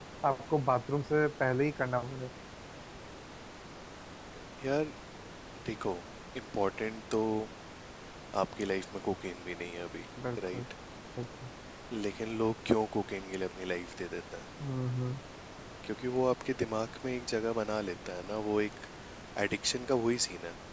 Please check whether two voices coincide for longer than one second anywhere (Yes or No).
No